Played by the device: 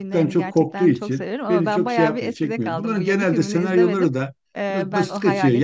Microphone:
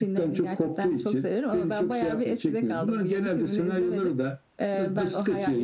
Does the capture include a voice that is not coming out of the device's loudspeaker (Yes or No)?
No